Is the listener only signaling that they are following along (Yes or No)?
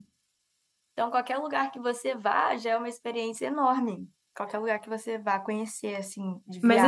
No